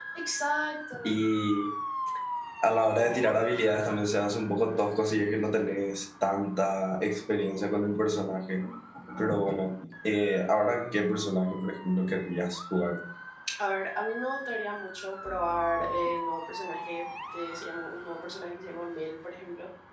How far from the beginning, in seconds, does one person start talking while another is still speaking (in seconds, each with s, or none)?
none